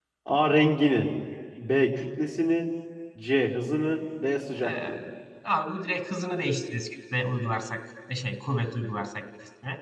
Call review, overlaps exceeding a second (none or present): none